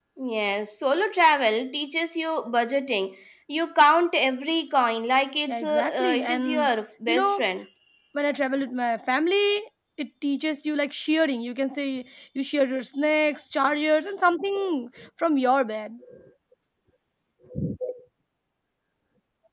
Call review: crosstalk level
present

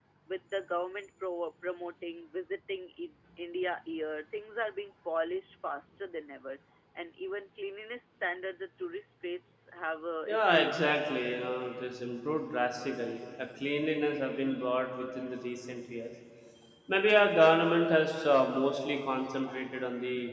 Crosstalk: present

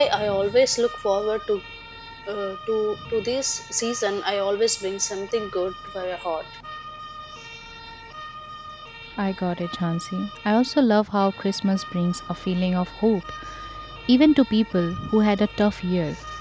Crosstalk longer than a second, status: none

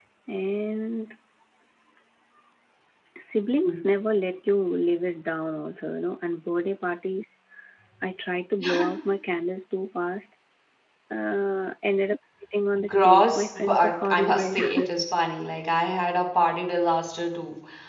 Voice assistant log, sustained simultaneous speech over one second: present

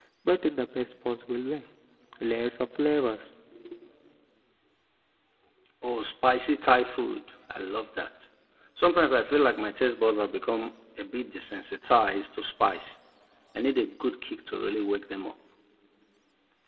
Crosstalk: none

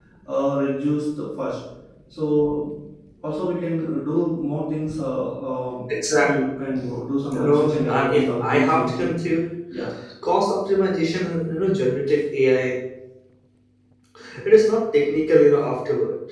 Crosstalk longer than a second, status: present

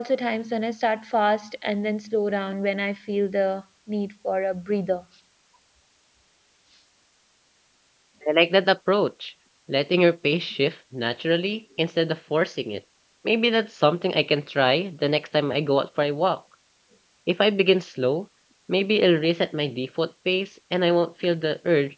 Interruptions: none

